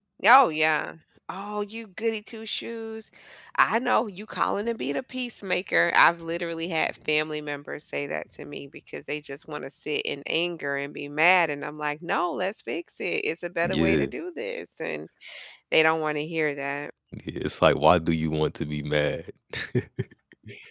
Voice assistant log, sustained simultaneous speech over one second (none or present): none